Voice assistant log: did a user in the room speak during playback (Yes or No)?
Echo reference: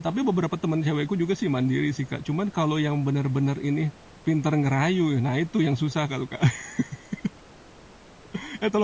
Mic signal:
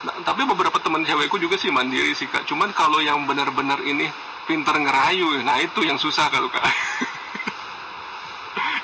No